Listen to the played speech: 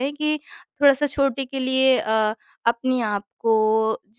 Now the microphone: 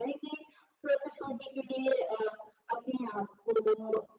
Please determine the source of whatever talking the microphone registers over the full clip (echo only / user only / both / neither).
echo only